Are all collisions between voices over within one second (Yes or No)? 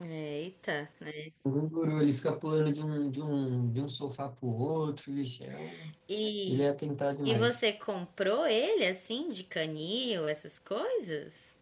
Yes